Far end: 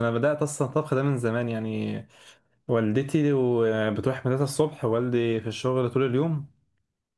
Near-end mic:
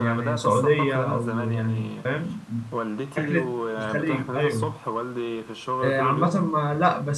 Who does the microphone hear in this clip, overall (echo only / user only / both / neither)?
both